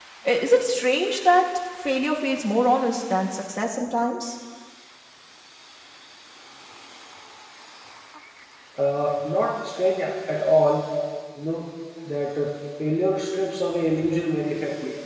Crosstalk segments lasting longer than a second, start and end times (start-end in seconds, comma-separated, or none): none